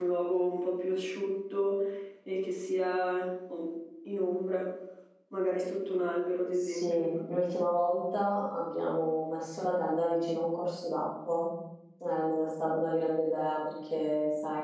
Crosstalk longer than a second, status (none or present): none